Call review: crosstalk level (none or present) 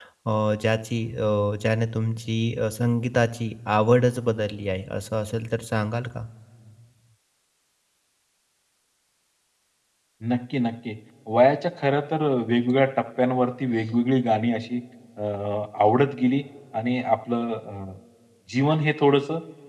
none